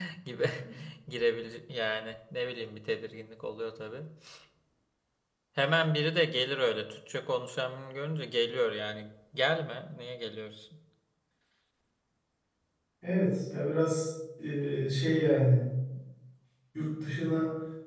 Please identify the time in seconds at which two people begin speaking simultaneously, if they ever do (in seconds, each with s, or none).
none